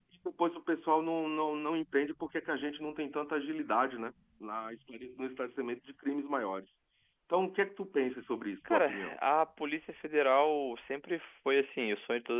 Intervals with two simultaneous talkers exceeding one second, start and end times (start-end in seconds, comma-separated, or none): none